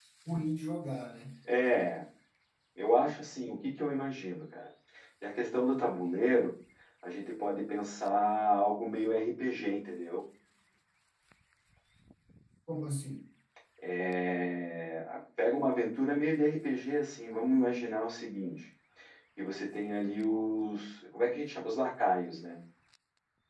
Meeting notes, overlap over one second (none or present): none